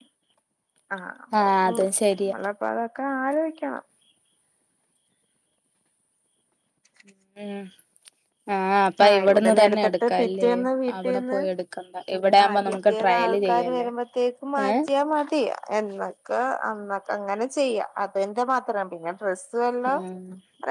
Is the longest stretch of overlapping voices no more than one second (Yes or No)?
No